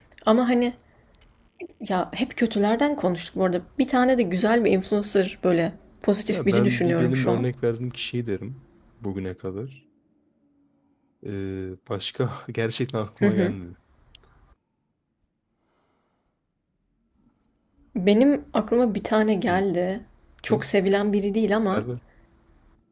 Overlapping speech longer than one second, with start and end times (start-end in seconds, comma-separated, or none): 6.3-7.5